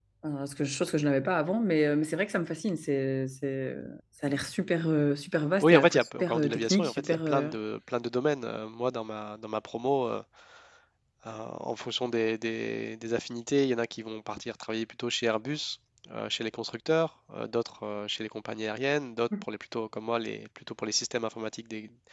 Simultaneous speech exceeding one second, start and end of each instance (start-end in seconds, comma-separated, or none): 5.6-7.5